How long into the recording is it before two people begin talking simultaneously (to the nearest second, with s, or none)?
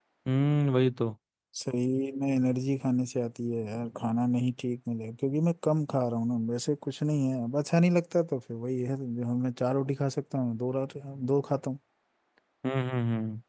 none